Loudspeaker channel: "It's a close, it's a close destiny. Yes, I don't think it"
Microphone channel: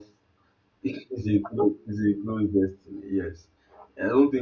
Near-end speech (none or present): none